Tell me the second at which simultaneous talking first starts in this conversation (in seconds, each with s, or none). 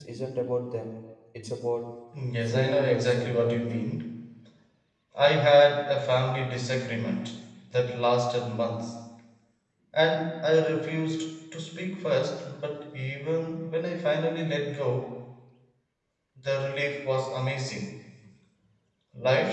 2.5 s